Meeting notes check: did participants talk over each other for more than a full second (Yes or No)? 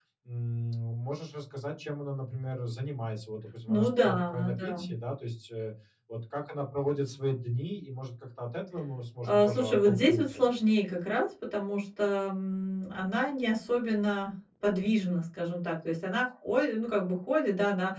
Yes